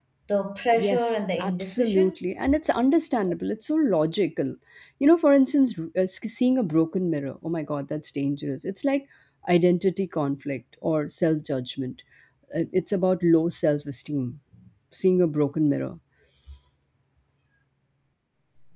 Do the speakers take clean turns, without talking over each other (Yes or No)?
No